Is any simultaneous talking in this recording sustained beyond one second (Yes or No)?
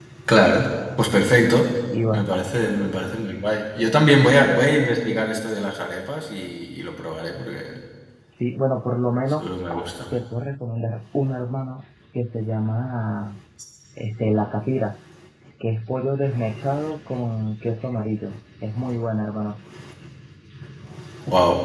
No